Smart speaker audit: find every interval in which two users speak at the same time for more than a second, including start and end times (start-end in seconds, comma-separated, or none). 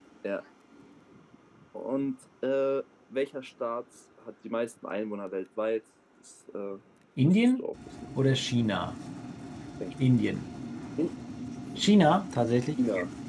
none